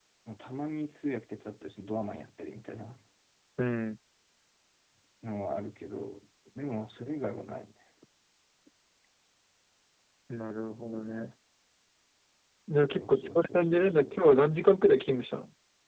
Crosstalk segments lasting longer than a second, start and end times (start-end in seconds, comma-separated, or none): 13.0-14.2